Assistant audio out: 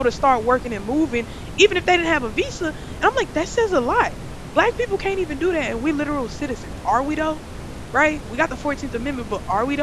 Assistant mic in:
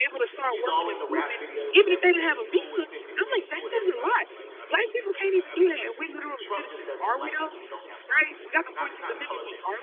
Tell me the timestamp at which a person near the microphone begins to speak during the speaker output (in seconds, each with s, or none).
0.5 s